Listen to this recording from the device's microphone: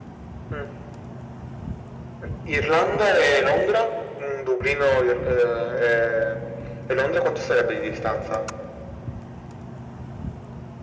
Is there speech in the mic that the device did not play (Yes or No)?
No